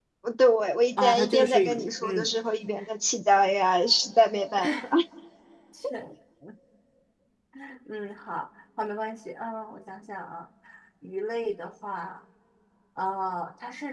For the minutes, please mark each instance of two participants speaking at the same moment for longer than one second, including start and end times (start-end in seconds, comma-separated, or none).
1.0-2.3